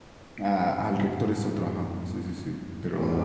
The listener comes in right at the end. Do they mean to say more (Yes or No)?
Yes